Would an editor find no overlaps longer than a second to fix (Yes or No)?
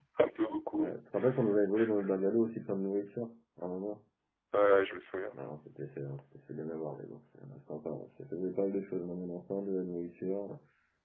Yes